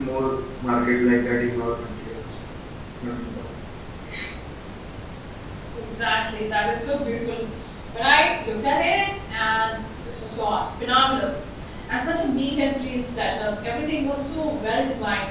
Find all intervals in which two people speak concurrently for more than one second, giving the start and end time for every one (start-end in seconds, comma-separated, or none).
none